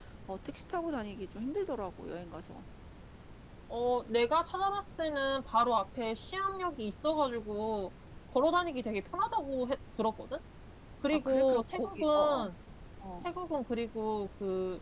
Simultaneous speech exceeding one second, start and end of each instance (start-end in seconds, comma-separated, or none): 11.1-12.4